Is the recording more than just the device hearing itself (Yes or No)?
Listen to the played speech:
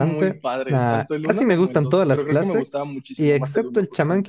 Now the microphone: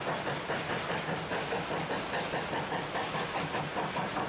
No